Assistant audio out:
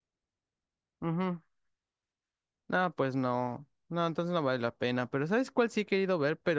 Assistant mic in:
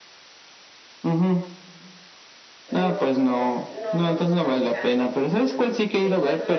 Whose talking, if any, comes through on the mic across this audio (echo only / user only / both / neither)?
both